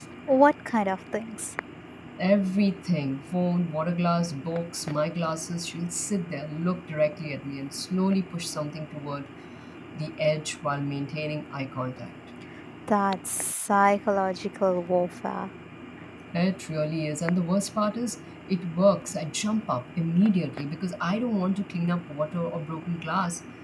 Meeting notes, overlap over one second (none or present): none